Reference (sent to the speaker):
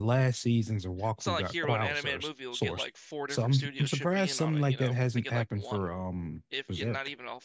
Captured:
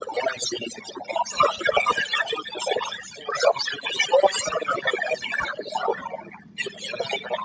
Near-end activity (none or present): none